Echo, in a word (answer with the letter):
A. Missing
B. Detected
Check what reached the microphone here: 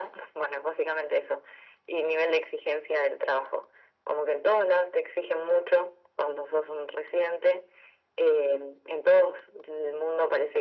B